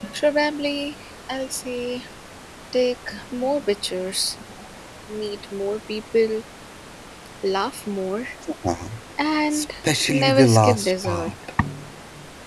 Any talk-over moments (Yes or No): Yes